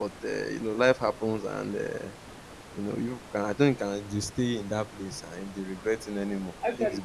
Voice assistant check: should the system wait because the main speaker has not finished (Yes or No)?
No